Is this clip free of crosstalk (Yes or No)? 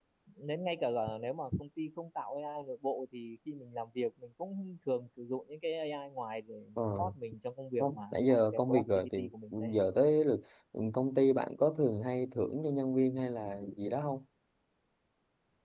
No